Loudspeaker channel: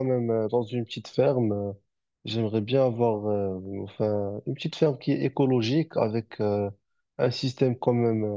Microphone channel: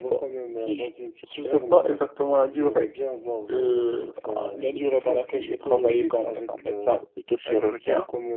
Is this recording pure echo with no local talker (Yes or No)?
No